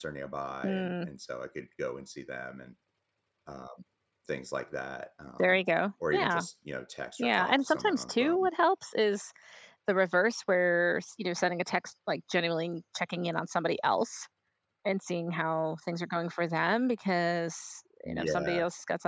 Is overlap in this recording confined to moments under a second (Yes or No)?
No